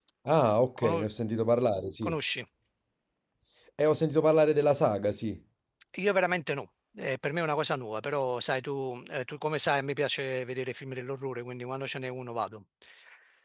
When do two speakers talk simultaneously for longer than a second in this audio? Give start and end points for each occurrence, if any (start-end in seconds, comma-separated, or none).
none